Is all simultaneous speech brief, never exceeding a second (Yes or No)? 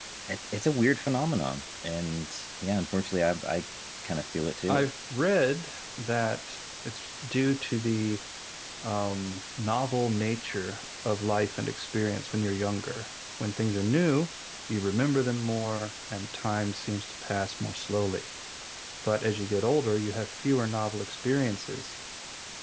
Yes